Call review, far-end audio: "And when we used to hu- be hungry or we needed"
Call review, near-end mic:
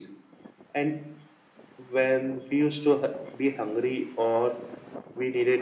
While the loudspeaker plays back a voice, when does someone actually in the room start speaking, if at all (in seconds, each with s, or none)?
none